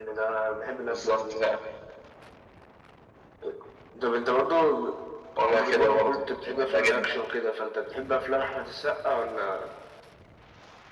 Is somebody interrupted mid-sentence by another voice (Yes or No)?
Yes